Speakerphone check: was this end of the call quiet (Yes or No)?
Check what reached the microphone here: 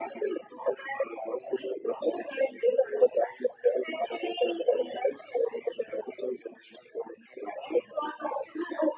Yes